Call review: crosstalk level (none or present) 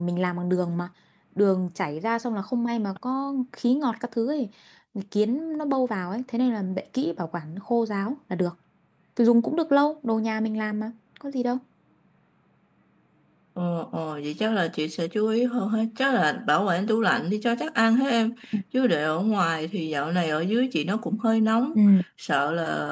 none